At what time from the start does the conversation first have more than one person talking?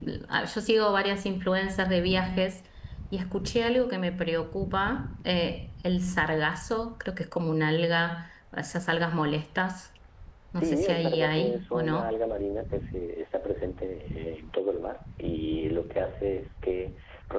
10.6 s

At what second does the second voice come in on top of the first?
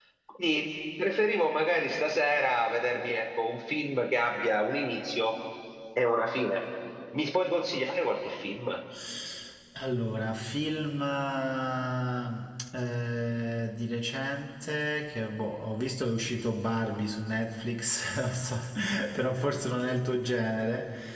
none

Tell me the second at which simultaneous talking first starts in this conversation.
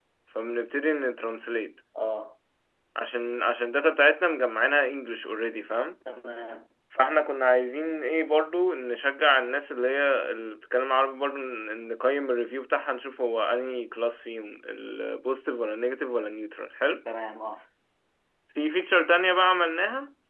none

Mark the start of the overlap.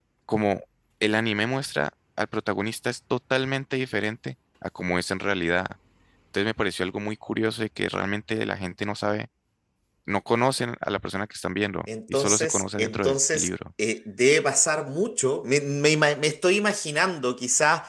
12.1 s

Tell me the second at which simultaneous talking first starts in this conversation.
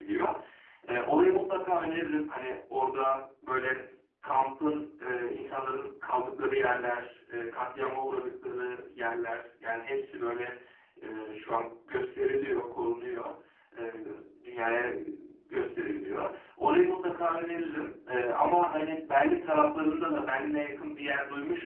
none

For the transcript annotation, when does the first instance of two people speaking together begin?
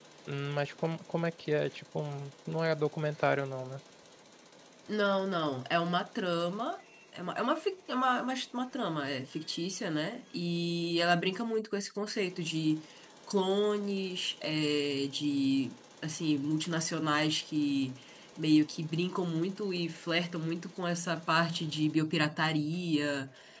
none

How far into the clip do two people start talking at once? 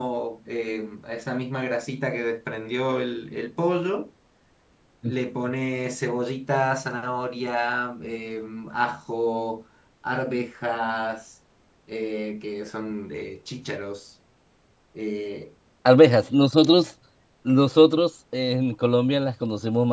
none

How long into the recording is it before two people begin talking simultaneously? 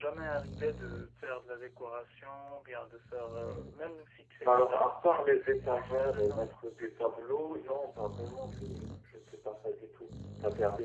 4.4 s

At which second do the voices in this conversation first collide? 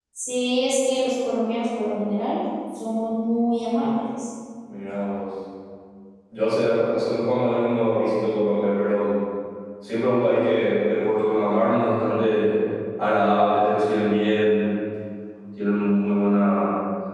none

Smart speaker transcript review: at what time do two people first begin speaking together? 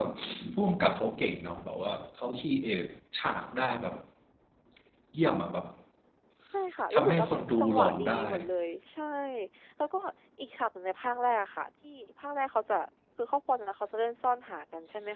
6.9 s

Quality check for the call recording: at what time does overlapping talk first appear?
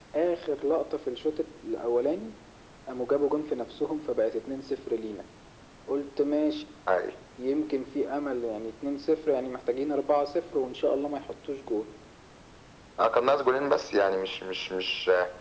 none

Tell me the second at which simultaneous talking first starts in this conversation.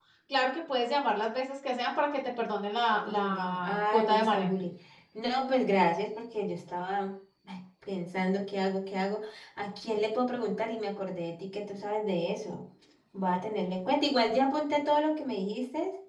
2.9 s

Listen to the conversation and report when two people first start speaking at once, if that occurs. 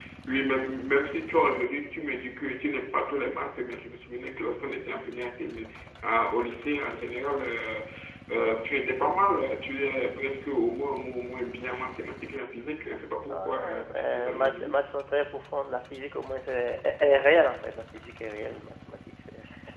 13.3 s

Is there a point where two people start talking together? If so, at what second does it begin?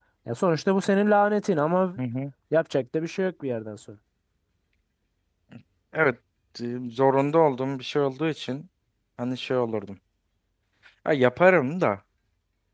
none

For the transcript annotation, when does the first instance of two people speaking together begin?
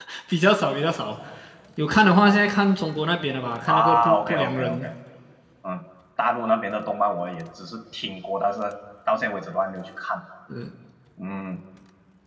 3.7 s

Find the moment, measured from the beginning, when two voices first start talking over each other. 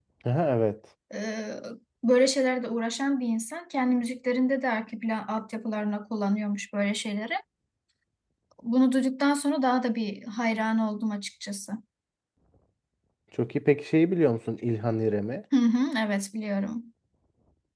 none

